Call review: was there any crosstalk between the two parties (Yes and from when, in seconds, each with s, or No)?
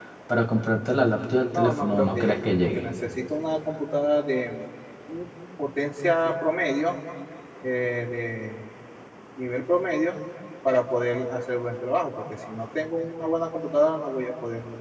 Yes, from 1.5 s